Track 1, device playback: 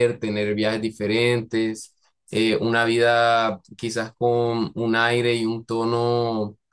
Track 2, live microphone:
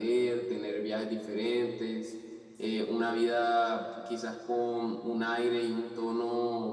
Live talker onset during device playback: none

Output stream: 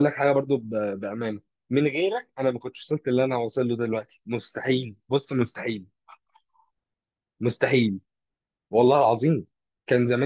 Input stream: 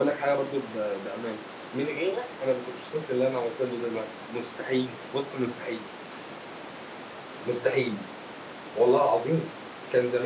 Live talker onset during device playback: none

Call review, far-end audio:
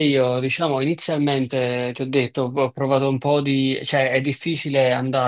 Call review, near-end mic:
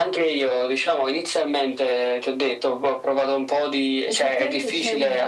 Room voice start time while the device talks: 4 s

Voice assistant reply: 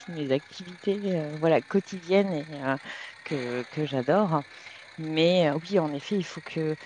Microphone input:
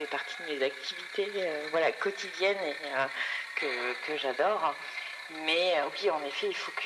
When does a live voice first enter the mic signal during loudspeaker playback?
none

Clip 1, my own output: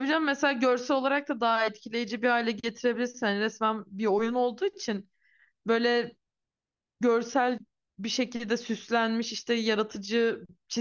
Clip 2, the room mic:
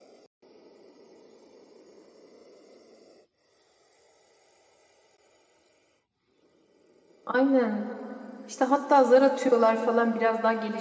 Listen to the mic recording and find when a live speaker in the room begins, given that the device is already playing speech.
7 s

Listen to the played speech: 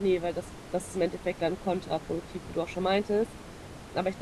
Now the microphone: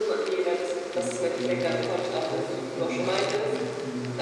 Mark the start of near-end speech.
1 s

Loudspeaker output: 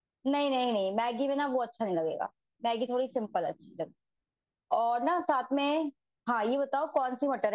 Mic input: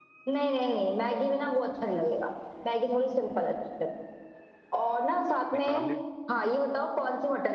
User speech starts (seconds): 6 s

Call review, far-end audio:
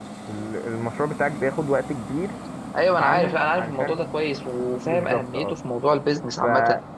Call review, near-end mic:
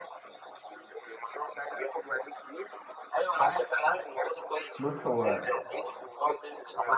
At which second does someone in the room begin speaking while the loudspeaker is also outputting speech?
5 s

